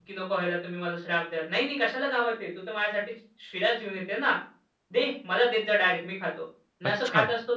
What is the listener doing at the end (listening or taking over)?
listening